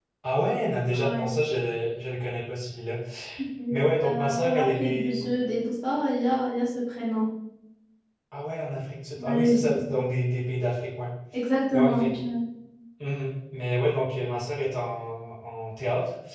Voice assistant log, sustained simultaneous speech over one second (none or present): present